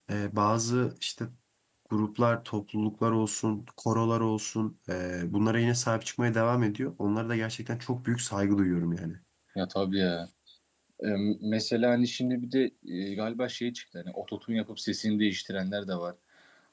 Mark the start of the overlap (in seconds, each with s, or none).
none